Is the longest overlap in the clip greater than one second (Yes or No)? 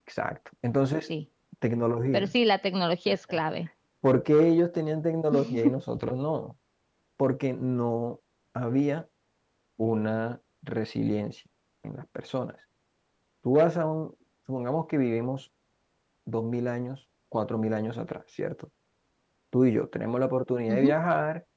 No